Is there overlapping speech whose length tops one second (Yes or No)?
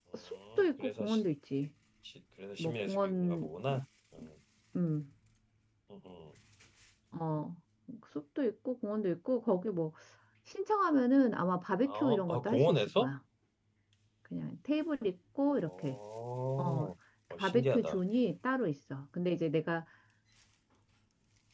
Yes